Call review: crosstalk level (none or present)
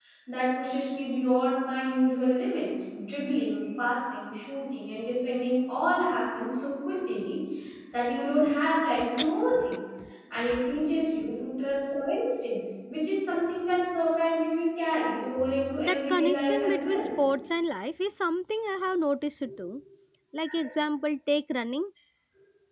present